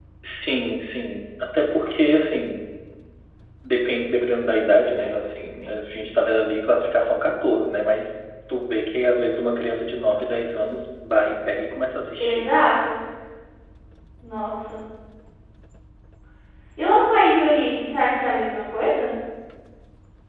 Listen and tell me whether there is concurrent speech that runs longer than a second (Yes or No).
No